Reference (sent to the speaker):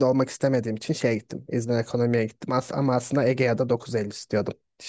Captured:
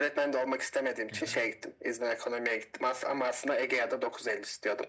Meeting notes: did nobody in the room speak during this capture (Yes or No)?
No